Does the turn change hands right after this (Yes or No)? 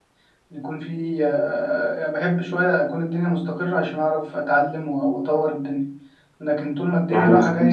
Yes